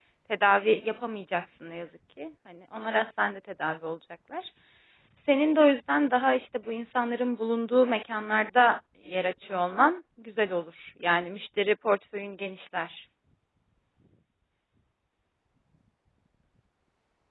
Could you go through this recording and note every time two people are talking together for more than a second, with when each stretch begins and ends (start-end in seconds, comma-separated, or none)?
none